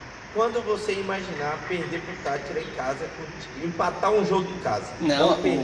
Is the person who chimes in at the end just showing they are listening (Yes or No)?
No